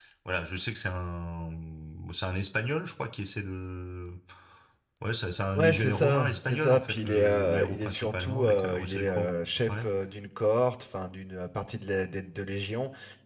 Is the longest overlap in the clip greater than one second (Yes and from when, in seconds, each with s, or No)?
Yes, from 5.5 s